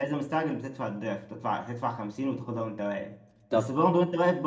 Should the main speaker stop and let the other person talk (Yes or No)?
No